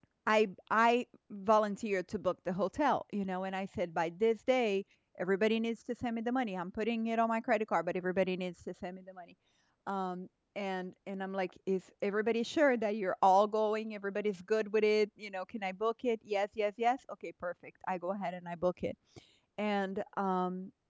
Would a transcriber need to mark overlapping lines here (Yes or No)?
No